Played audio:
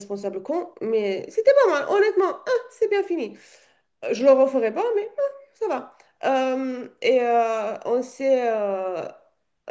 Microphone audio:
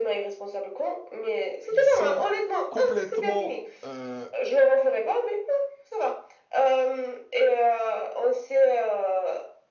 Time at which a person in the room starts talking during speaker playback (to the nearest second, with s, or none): 2 s